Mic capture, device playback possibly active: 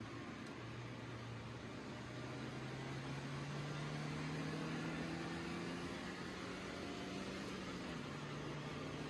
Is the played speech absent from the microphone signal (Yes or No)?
Yes